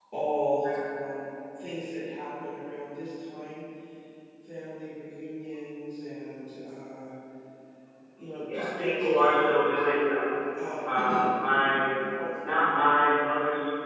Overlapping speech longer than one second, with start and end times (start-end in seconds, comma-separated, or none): 8.5-9.8